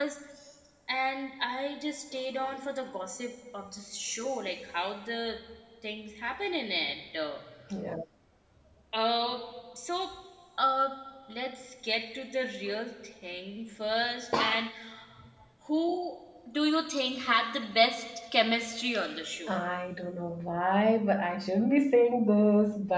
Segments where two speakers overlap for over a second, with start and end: none

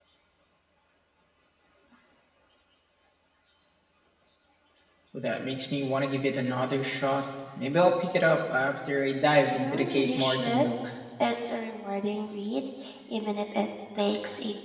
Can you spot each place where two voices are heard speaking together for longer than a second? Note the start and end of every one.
9.4-10.6

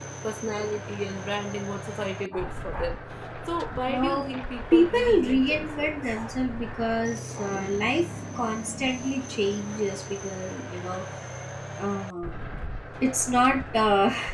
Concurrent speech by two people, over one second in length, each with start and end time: 4.7-6.1

